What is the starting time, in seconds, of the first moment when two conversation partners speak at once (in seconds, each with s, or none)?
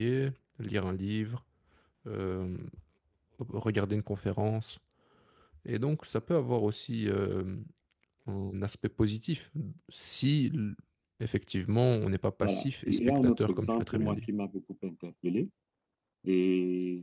12.4 s